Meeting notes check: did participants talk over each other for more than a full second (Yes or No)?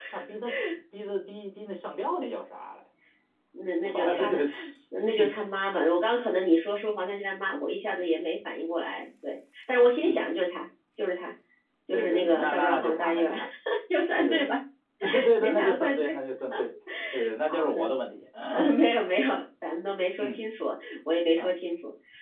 Yes